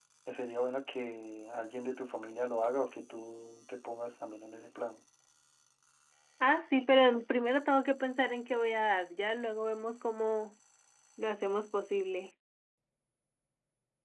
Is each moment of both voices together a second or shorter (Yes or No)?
Yes